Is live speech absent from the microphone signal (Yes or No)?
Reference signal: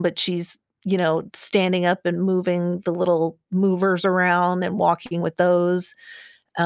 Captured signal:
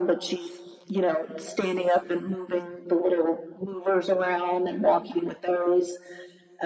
Yes